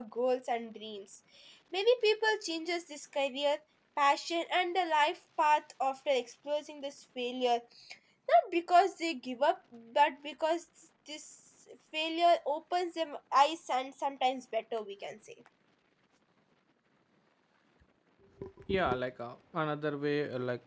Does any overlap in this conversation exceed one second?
No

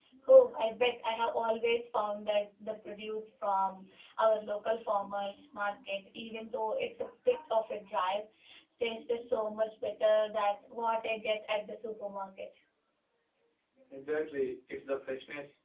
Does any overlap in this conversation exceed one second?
No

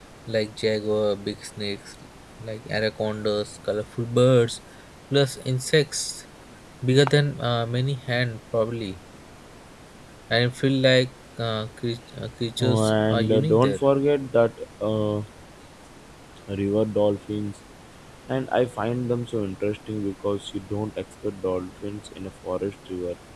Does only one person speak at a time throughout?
No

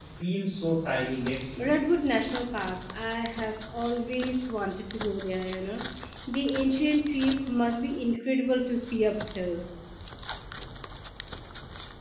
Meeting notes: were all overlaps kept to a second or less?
Yes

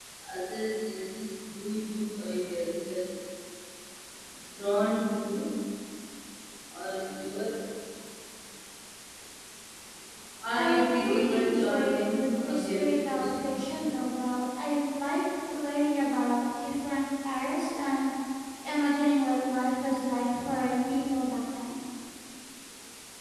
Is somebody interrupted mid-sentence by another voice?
Yes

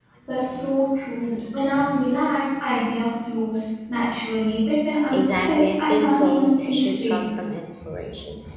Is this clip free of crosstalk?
No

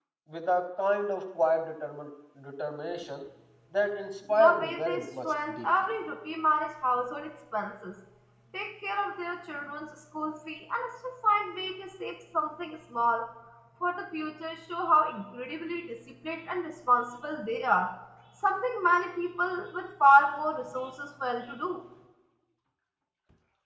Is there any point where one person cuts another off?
Yes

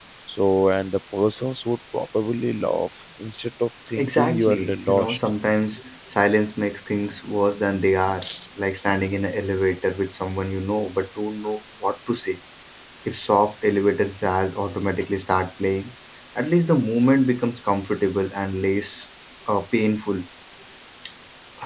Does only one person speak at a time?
No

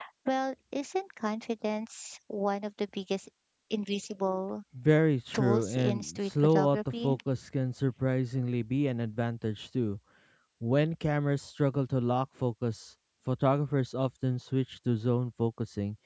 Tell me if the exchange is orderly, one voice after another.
No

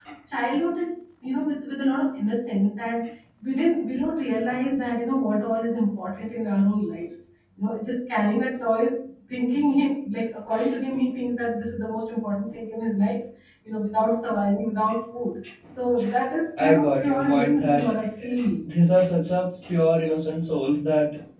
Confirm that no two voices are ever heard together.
No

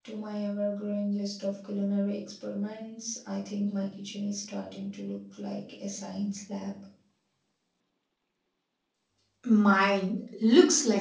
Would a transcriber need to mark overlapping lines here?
No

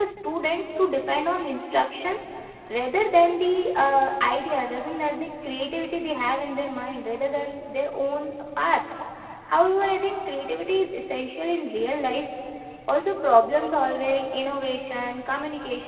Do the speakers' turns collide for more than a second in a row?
No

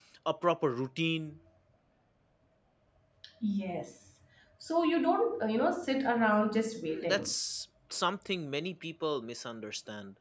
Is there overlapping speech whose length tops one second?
No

